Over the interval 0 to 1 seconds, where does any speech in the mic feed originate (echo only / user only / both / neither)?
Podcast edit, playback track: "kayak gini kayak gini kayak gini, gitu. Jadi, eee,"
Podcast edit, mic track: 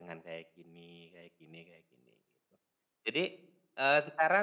echo only